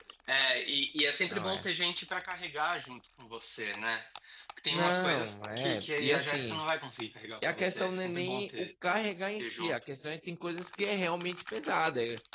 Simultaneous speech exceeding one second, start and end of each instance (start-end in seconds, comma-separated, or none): 4.7-6.6, 7.5-8.7